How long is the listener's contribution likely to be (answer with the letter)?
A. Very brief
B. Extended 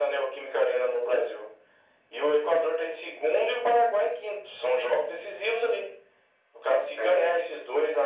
A